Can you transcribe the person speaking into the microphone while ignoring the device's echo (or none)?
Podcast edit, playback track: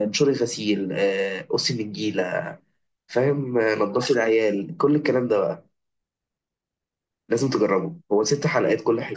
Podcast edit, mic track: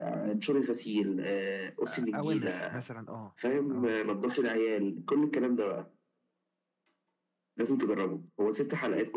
آه، اوامر مثلا اه اه